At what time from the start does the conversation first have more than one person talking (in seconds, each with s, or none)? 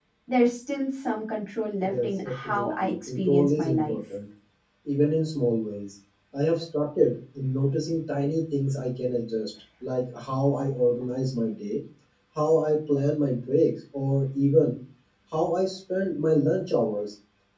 1.8 s